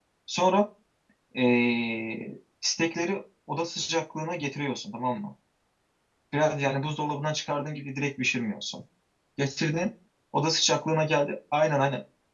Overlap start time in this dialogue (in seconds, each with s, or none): none